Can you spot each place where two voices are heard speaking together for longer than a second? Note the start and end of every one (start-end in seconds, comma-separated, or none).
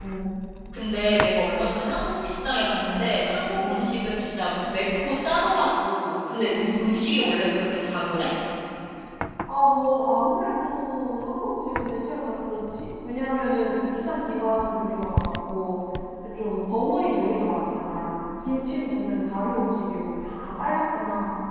none